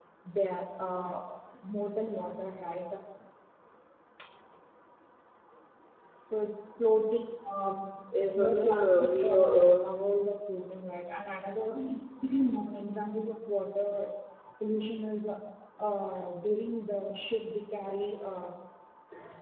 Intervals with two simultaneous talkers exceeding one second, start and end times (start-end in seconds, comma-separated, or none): 8.3-9.9